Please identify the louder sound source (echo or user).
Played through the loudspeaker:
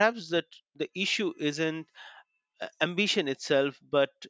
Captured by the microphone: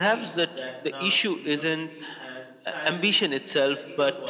echo